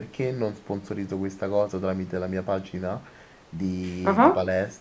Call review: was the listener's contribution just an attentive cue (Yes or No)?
Yes